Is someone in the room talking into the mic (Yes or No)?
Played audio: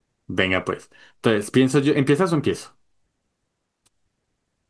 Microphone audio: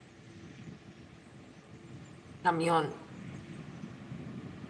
Yes